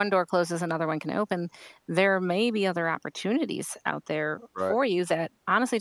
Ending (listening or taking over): listening